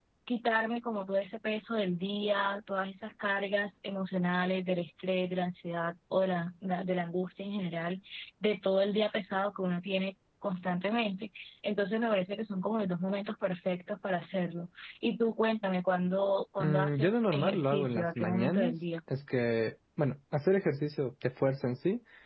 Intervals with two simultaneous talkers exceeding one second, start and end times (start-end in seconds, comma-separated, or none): 16.6-18.8